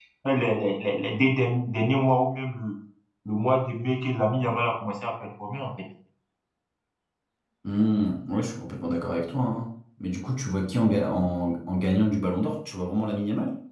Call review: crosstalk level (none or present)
none